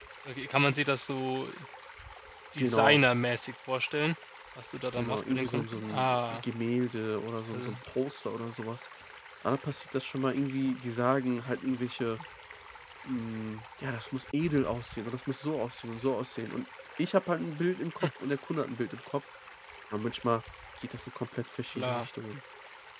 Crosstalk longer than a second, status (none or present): present